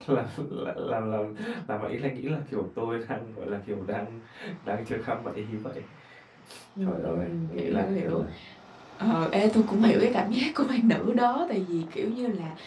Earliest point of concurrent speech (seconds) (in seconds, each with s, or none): 6.8 s